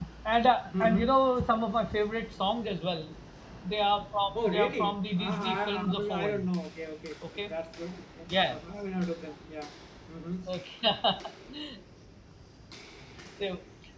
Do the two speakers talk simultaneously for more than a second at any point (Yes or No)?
Yes